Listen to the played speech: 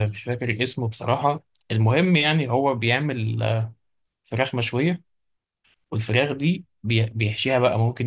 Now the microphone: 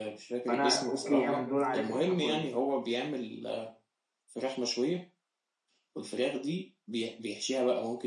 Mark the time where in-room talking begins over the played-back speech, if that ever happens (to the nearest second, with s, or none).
0 s